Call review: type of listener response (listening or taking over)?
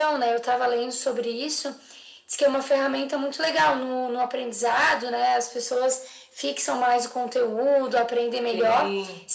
listening